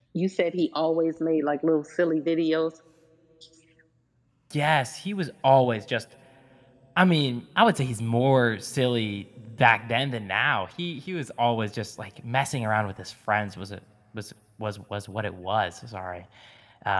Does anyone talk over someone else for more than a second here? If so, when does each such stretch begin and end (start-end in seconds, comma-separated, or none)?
none